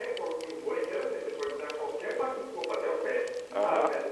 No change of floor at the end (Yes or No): No